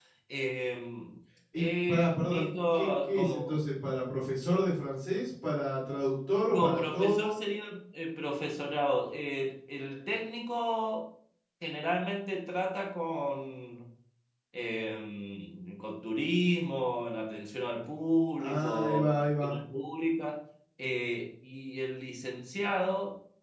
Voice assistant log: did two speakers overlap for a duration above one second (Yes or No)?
Yes